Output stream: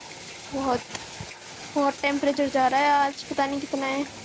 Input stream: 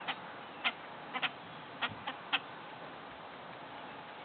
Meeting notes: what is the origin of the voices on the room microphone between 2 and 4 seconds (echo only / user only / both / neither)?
neither